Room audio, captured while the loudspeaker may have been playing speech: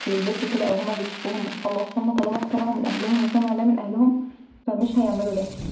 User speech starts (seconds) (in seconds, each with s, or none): none